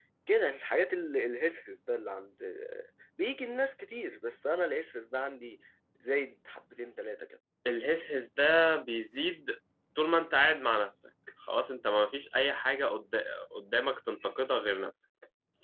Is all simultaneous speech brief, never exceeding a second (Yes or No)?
Yes